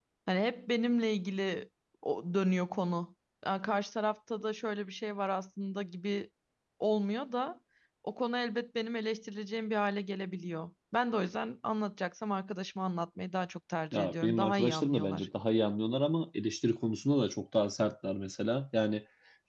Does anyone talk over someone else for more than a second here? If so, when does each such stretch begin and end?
13.9-15.3

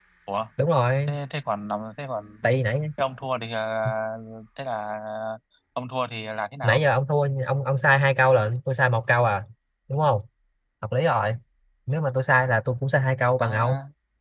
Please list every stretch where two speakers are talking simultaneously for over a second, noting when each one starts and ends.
none

